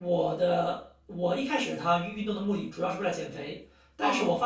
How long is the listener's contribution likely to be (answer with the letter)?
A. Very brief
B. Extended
A